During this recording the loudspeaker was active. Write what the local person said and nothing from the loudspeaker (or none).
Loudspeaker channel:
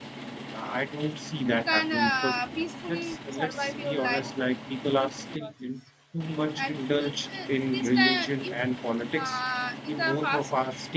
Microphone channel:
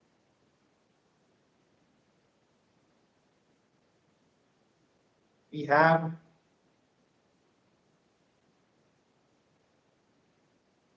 we have